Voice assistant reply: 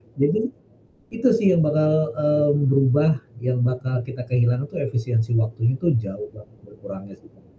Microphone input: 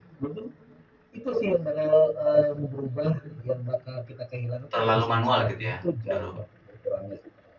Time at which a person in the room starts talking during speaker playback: 4.7 s

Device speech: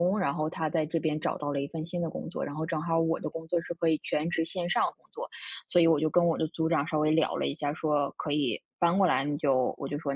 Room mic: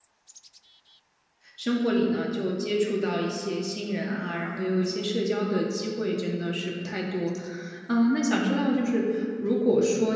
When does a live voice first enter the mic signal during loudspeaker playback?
1.6 s

